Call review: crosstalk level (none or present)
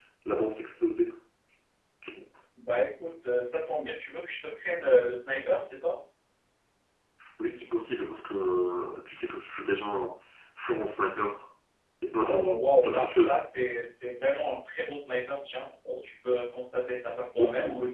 present